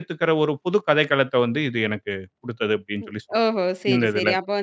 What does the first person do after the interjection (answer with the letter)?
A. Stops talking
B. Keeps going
A